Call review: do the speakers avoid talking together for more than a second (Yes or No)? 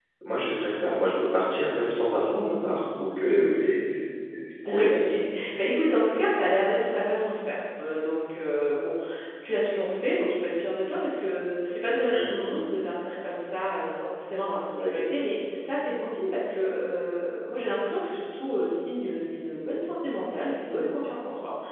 No